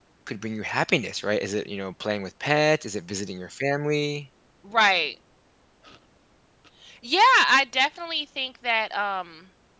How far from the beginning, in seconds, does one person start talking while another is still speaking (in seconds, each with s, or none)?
none